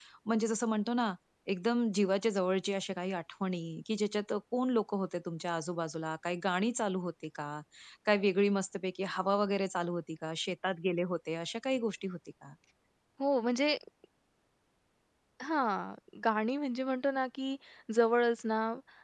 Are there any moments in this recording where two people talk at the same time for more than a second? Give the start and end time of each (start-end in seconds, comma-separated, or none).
none